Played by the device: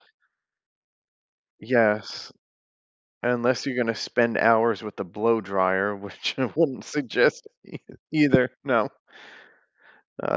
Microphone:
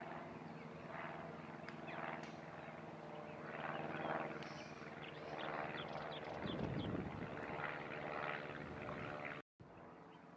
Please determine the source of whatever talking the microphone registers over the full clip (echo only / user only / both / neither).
neither